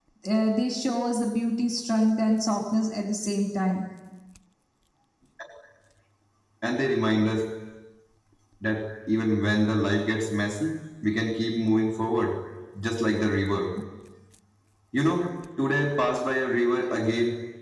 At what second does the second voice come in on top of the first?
none

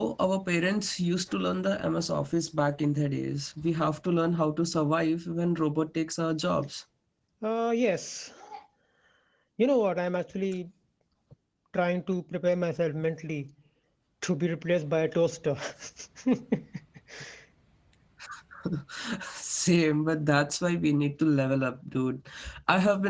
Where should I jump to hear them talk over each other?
none

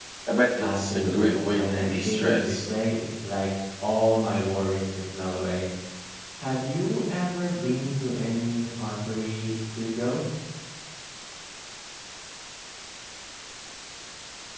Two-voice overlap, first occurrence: 0.6 s

